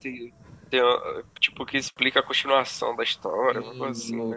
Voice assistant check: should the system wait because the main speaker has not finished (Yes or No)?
No